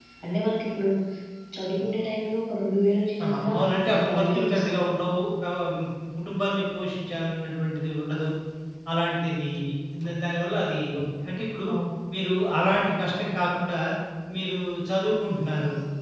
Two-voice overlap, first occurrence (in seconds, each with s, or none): 3.2 s